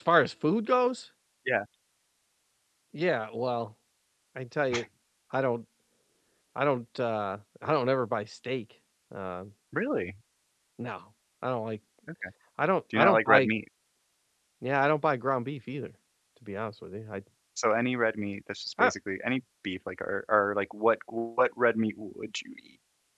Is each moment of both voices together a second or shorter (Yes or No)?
Yes